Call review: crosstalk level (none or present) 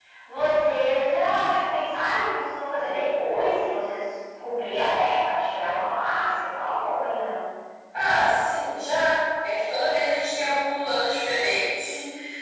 none